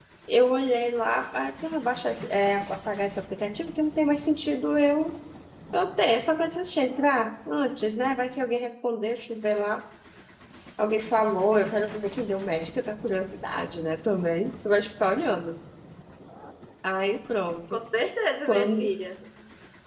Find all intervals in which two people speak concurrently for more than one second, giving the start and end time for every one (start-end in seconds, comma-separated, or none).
none